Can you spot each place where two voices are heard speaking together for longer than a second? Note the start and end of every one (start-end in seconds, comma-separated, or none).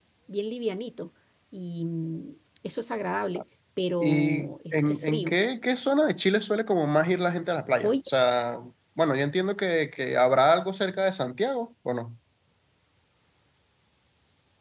4.0-5.3